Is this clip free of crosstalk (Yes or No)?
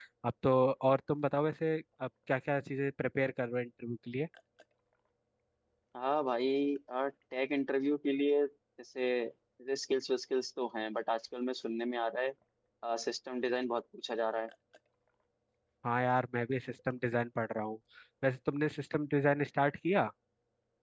Yes